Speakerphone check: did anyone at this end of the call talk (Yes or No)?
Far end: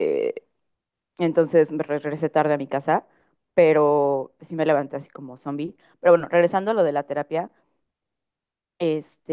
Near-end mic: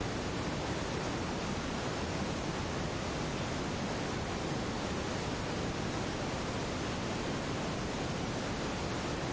No